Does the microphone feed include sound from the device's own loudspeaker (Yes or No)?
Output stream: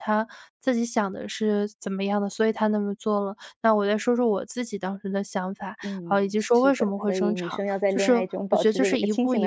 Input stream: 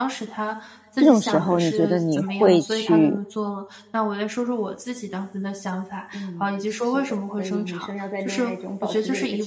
Yes